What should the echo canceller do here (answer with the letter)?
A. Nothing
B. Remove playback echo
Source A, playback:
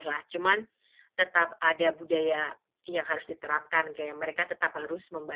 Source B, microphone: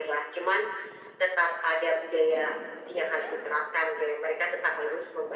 B